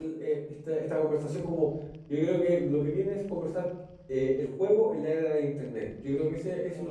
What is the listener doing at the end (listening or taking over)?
taking over